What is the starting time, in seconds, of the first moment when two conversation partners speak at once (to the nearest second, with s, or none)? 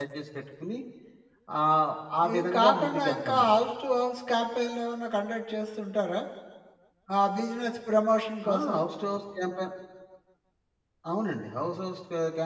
2 s